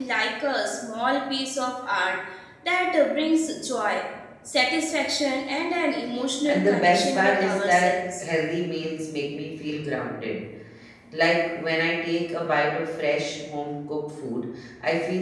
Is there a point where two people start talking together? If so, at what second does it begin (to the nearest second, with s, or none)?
6 s